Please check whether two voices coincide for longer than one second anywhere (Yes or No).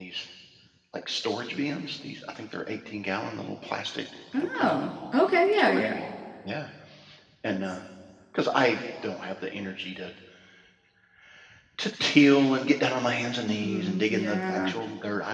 Yes